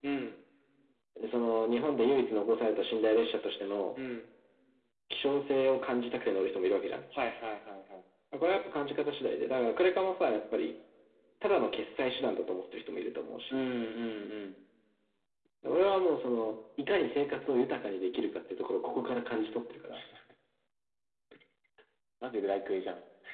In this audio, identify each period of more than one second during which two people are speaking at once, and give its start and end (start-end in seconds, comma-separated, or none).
none